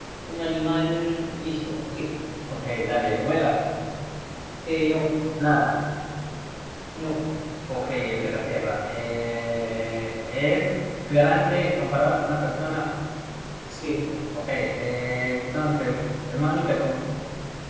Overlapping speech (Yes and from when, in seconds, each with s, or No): No